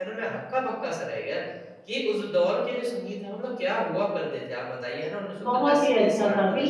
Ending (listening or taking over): taking over